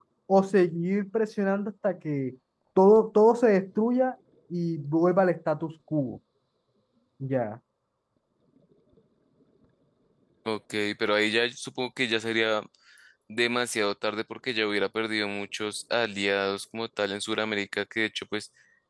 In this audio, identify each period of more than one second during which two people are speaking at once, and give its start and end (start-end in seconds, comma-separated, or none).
none